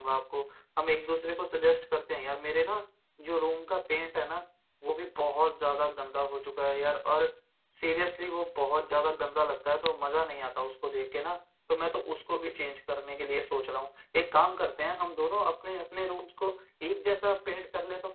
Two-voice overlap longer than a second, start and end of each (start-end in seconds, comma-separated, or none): none